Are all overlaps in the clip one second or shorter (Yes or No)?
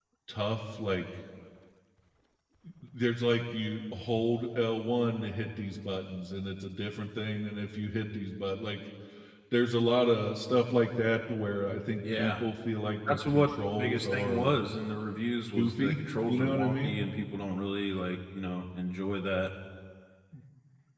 No